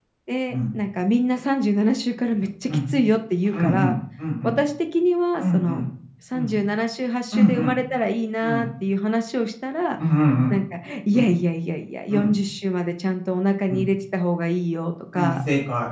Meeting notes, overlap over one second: none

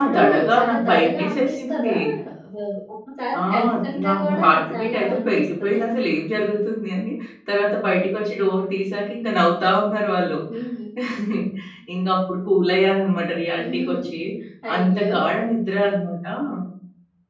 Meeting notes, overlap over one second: present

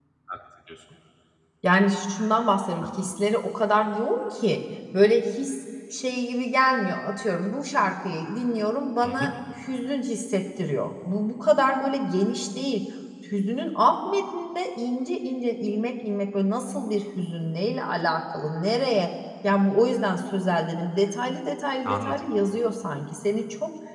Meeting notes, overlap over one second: none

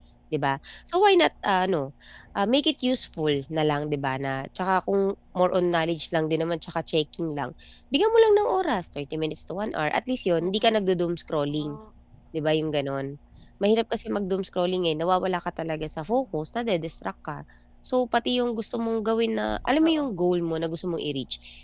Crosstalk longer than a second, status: none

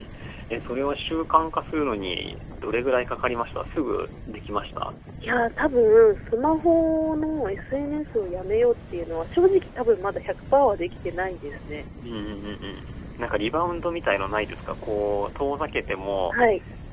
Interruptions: none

